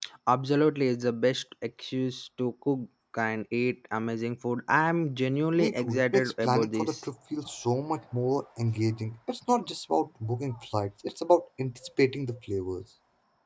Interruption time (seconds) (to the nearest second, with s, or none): 6 s